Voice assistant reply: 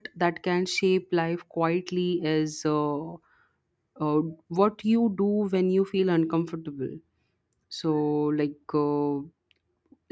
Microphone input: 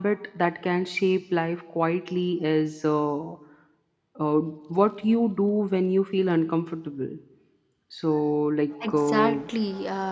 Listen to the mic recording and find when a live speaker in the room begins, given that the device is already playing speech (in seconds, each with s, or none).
8.8 s